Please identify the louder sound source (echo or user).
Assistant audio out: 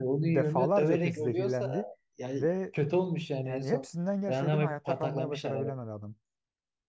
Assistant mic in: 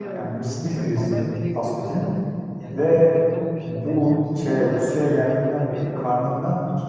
user